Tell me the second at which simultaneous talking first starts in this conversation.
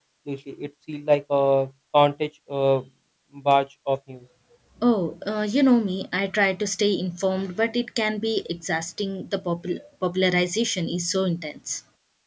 none

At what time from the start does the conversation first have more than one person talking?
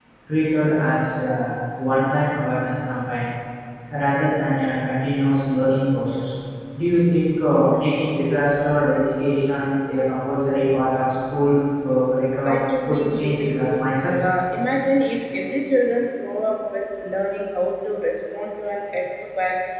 12.4 s

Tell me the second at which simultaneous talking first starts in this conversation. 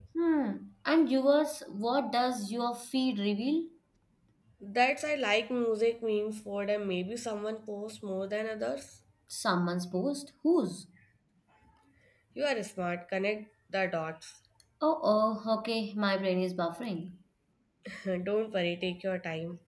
none

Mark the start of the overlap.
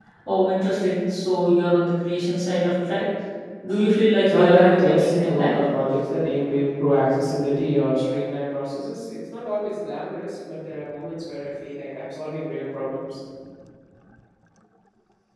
4.3 s

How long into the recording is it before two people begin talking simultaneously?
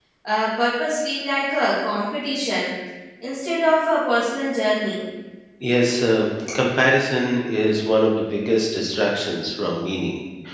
none

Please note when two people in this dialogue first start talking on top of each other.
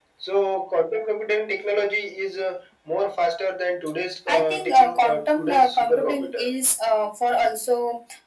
4.3 s

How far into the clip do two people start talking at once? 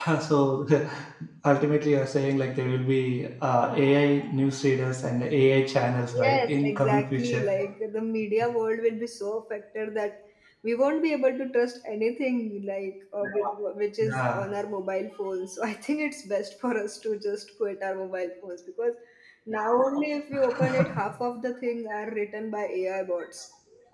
6.1 s

